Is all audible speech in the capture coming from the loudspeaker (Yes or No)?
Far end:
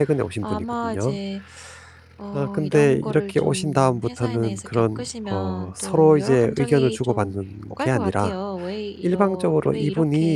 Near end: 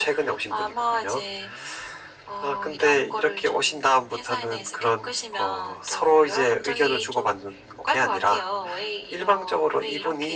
Yes